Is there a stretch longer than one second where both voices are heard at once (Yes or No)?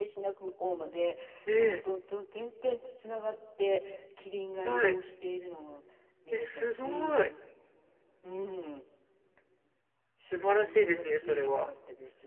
Yes